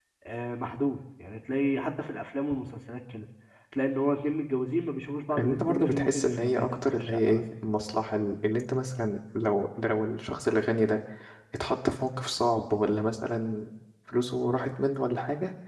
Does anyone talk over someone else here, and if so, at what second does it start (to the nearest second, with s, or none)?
5 s